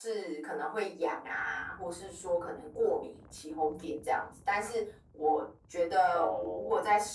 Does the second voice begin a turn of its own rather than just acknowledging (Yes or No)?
No